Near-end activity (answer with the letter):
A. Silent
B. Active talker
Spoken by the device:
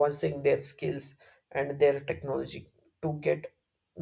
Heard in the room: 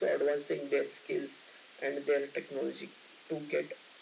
A